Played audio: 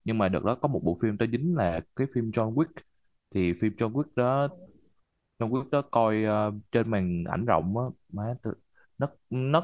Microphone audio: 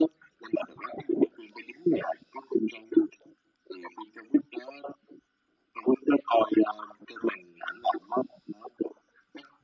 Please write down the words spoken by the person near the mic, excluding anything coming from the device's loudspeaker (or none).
none